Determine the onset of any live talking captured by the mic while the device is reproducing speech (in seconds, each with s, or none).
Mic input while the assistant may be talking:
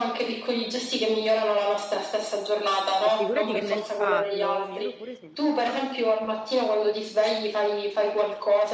3.0 s